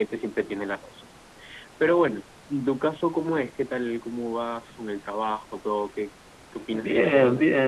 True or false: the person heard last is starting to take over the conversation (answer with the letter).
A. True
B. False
A